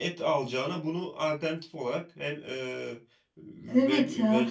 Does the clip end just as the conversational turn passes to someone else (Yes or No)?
Yes